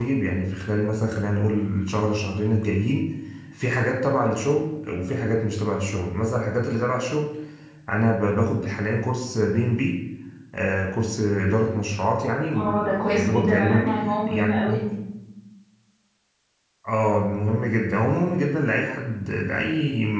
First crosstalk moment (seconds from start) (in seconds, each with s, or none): 12.6 s